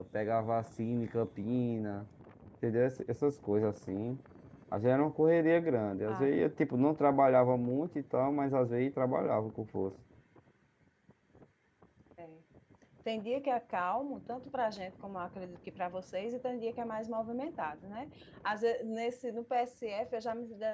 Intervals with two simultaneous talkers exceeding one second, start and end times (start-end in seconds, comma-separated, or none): none